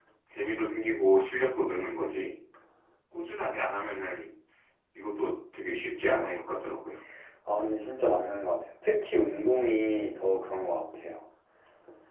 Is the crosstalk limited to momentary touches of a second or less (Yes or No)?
Yes